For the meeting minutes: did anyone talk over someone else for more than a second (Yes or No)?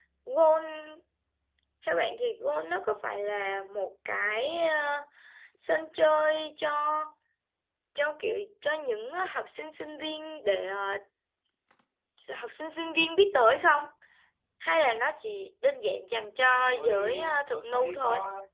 Yes